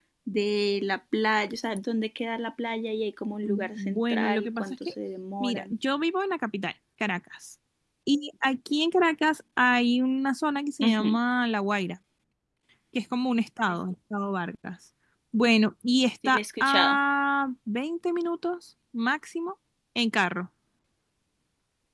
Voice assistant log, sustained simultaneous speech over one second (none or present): present